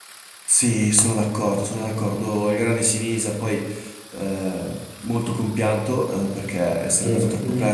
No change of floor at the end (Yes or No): Yes